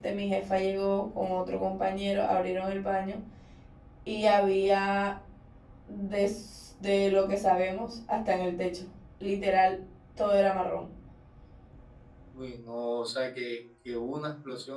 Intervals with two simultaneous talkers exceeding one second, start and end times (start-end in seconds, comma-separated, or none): none